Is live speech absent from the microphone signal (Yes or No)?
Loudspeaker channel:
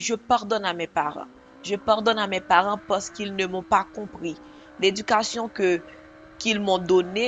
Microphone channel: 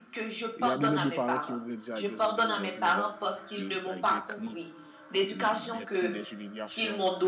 No